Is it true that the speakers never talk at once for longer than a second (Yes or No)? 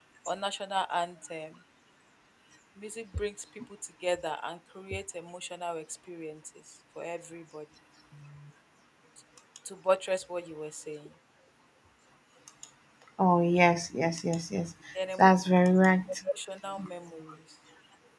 Yes